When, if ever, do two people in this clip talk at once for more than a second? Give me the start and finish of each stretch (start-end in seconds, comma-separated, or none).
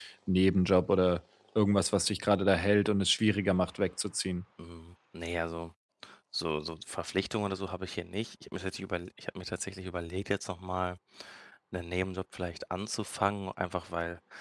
none